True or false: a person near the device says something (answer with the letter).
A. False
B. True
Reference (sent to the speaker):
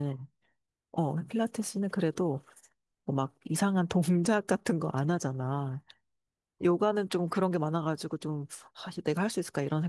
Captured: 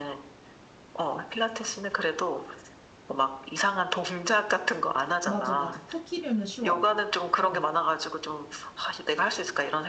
B